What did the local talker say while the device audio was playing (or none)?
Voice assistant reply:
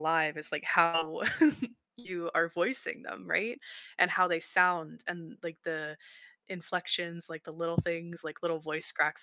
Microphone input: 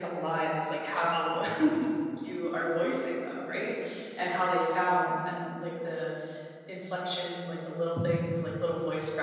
none